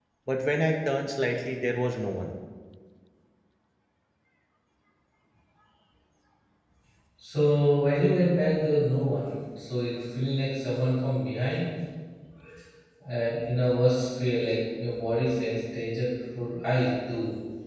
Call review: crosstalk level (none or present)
none